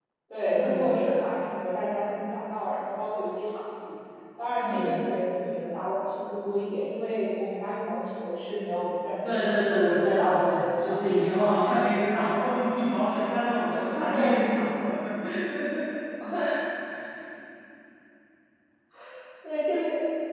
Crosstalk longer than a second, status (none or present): present